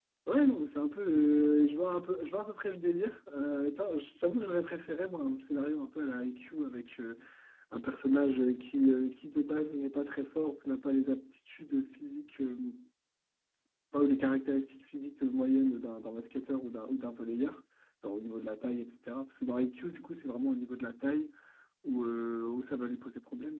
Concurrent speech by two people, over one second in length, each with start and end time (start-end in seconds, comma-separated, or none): none